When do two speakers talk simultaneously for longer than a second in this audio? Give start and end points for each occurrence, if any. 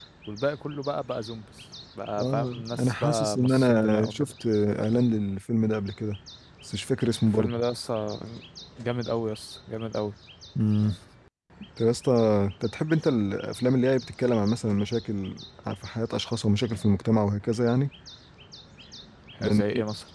2.2-4.3

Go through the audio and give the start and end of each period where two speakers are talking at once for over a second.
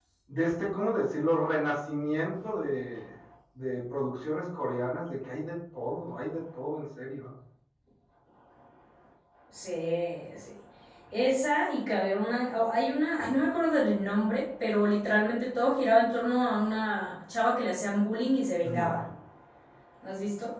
none

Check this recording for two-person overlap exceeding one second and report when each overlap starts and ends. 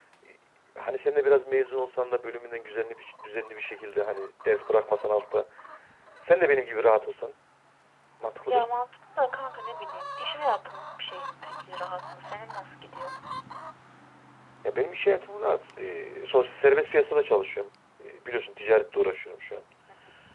none

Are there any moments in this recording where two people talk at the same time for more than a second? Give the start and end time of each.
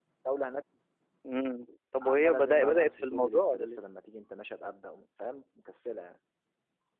2.0-3.8

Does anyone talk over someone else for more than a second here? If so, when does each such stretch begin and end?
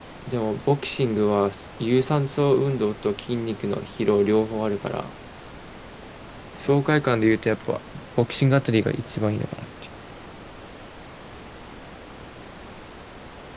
none

